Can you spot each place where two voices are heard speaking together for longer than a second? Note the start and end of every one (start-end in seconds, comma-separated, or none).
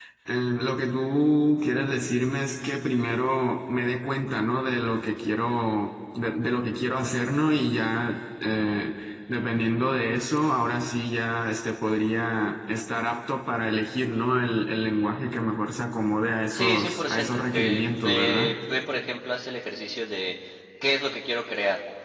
16.5-18.6